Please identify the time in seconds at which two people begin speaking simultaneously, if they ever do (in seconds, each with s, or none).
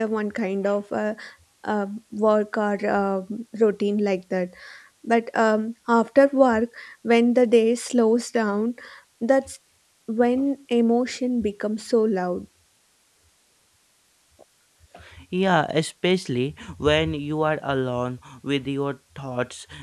none